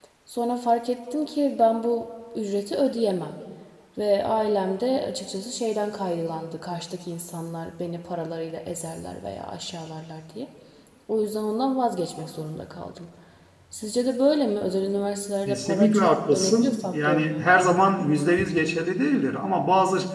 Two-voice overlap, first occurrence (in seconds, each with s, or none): 15.5 s